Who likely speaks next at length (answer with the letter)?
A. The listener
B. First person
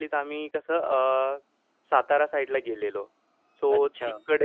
B